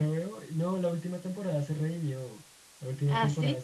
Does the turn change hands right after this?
No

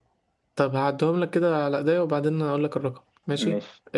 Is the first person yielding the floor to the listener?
No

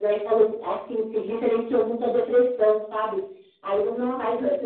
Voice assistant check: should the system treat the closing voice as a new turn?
No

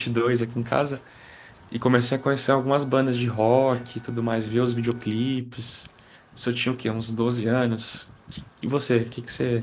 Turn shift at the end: No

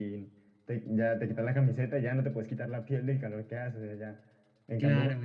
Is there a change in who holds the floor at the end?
No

